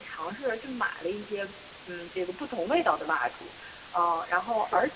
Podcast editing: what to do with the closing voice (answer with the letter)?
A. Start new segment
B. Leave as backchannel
B